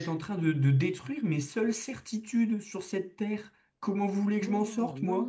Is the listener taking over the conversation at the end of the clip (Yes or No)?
Yes